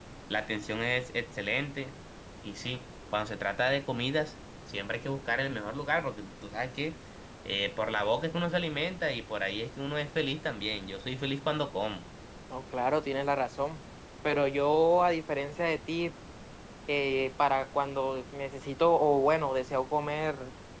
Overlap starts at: none

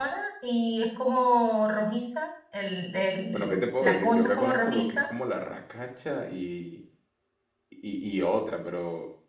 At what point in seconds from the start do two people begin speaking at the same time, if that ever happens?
3.3 s

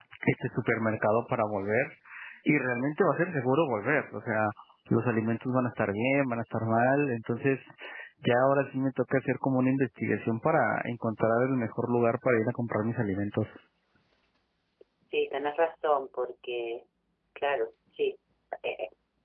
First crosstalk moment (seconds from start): none

